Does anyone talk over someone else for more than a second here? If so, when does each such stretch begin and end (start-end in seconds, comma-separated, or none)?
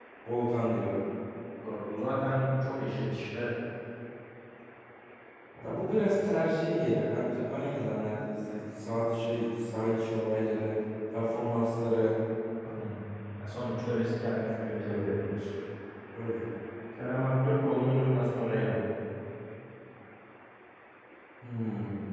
none